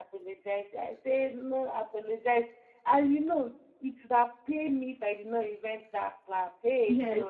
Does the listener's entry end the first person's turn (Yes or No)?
No